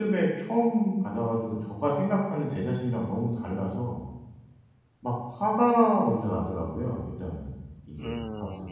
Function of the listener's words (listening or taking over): taking over